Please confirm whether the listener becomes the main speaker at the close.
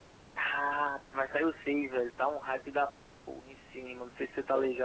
Yes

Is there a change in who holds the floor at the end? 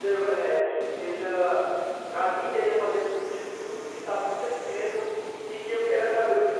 No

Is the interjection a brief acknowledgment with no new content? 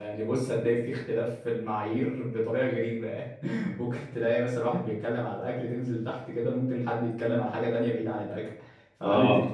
Yes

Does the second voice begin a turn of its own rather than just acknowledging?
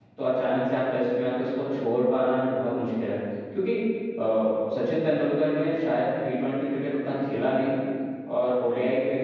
No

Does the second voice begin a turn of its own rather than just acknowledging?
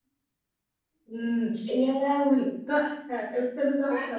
Yes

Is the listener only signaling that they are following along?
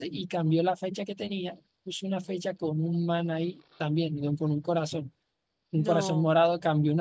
Yes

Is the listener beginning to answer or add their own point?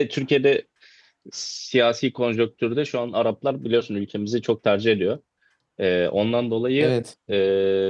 No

